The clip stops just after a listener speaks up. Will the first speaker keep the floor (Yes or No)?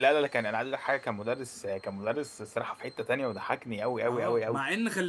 No